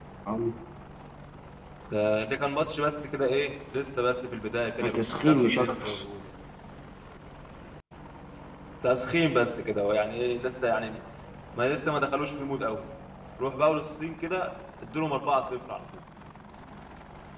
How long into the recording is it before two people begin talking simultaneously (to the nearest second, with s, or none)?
5 s